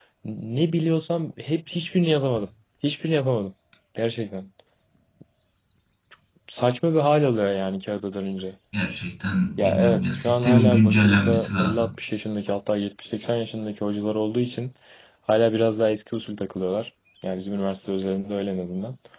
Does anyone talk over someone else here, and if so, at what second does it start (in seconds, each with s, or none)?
9.6 s